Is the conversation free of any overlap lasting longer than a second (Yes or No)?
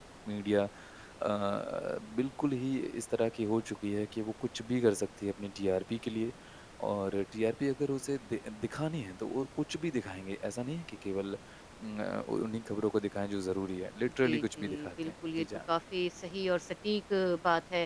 No